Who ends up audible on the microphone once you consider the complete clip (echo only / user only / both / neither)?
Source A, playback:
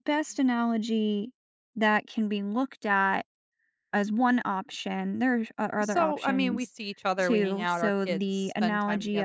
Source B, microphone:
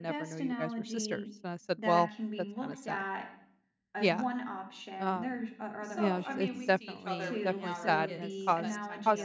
both